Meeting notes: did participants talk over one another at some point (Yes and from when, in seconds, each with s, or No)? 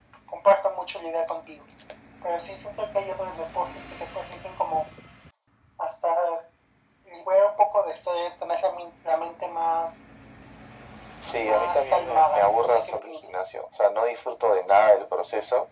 Yes, from 11.4 s